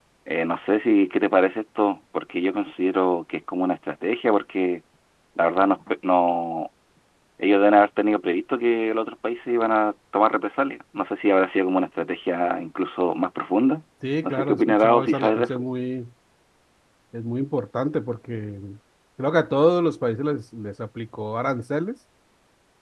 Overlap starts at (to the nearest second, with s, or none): 14 s